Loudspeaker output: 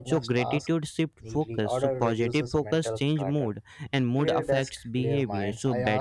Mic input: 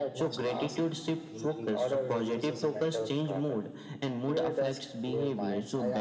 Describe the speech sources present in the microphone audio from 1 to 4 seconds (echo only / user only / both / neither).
echo only